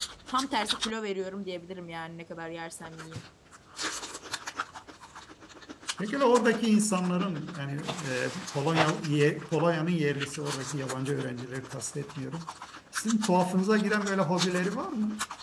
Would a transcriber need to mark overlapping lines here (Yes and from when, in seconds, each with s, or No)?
No